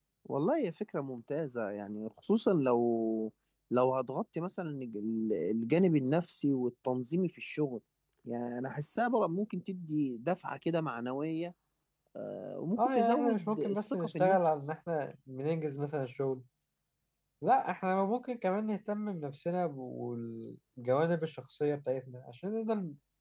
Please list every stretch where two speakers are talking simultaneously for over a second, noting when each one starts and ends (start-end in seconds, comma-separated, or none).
12.8-14.7